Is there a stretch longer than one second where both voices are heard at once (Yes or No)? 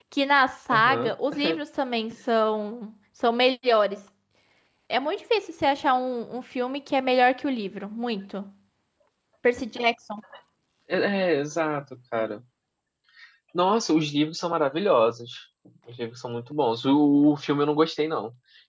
No